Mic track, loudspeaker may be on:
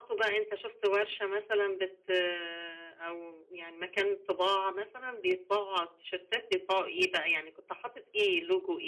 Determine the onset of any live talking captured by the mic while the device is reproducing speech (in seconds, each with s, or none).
none